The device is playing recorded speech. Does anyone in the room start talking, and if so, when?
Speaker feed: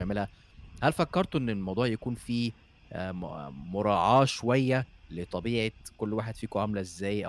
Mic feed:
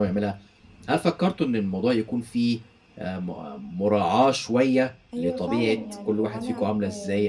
5.1 s

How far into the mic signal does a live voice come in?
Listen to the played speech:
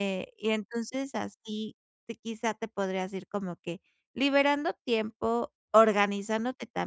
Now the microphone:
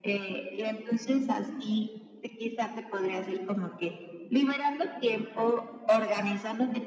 none

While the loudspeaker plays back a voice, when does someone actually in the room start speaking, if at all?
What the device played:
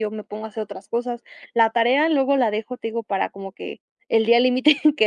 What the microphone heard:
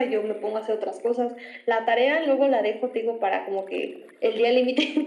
none

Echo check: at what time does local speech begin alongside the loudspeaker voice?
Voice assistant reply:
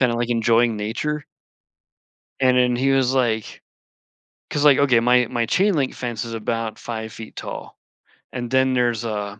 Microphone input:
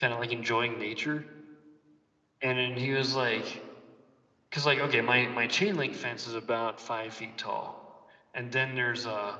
none

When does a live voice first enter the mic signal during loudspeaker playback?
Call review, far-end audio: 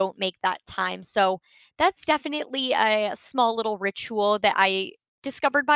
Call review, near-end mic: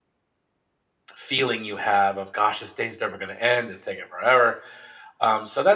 1.1 s

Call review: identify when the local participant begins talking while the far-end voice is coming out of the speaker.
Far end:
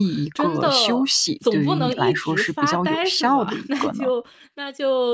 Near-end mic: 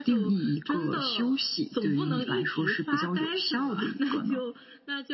none

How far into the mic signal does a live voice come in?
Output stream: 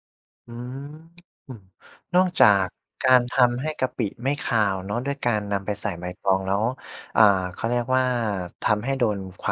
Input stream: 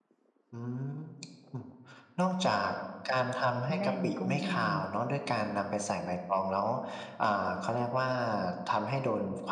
3.7 s

